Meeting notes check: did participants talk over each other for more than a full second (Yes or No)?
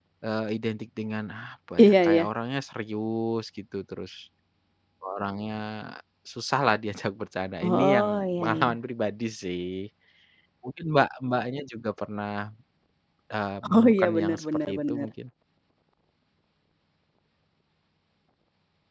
Yes